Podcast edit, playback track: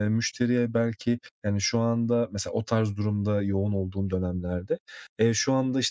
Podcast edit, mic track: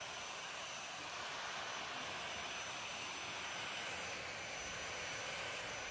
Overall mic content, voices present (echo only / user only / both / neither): neither